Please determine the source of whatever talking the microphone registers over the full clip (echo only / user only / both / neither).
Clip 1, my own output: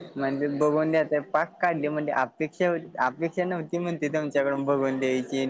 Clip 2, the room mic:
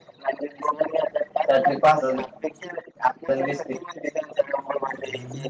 both